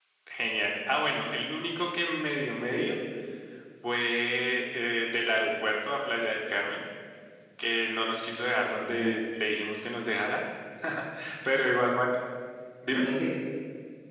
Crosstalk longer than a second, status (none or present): none